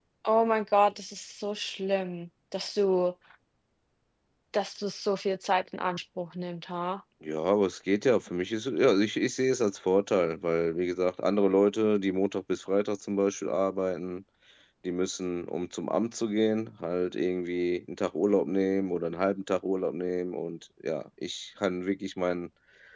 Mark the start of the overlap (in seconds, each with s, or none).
none